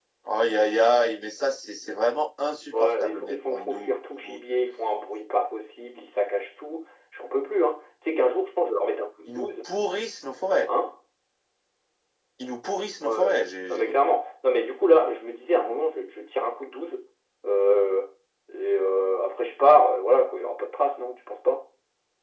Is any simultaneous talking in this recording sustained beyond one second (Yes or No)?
Yes